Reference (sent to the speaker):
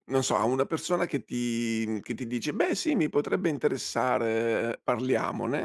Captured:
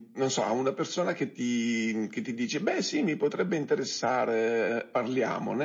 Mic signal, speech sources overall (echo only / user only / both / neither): echo only